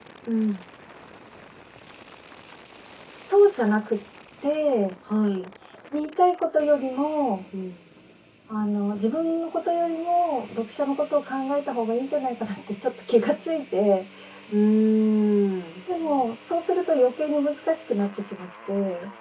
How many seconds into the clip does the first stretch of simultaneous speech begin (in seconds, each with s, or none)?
none